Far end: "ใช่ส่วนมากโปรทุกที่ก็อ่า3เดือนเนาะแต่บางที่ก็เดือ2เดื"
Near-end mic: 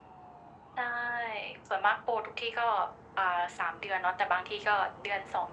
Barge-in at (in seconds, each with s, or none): none